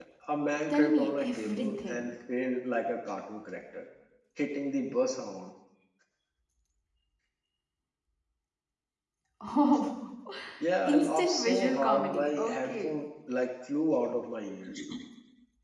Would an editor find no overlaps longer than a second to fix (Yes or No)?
No